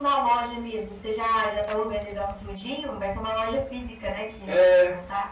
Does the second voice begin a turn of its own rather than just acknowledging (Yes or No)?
Yes